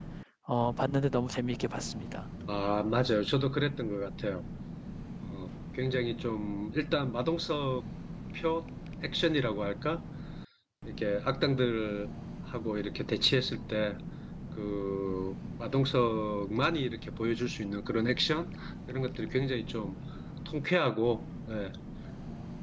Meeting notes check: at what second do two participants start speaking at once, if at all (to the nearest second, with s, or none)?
none